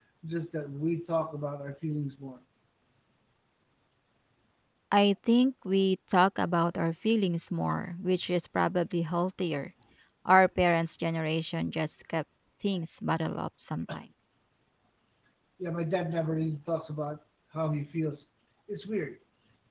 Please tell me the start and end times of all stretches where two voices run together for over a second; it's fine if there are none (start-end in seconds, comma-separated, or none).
none